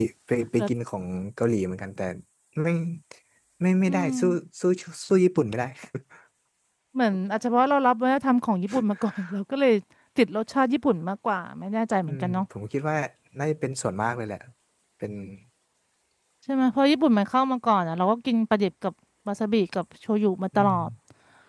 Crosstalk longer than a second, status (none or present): none